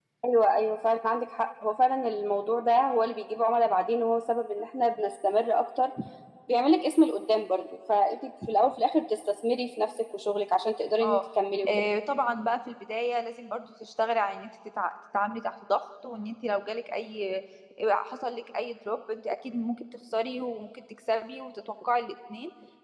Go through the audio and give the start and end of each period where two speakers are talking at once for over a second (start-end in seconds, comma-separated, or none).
none